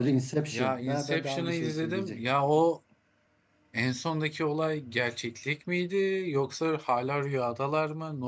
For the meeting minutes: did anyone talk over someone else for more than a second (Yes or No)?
Yes